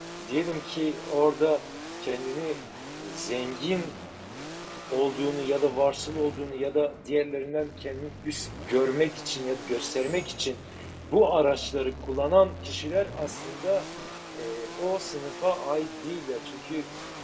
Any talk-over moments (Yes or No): No